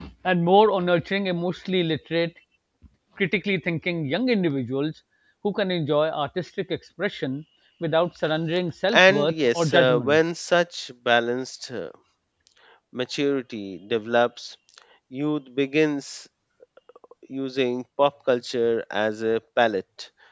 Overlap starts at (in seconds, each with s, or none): 8.9 s